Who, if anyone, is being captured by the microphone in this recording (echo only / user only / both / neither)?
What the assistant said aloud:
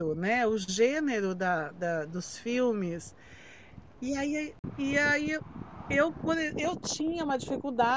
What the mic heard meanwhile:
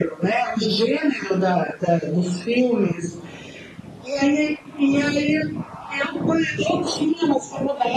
echo only